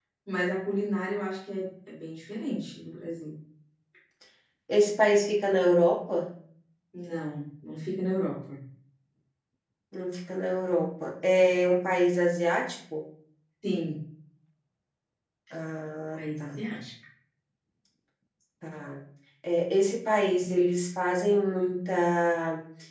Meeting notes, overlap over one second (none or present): none